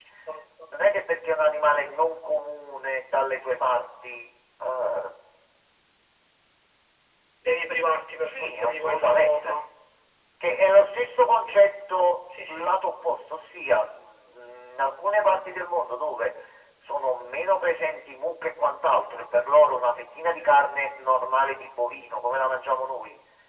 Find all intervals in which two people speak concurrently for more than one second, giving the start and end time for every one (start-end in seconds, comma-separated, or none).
8.3-9.6